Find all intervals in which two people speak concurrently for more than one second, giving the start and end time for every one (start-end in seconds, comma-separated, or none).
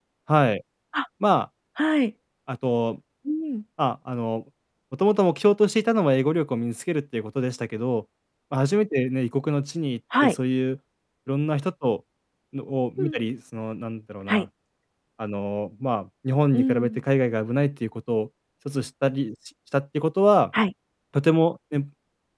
none